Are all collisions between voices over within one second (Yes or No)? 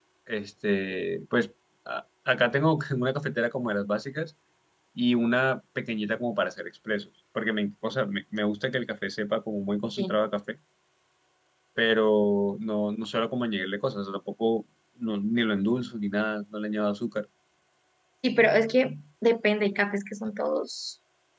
Yes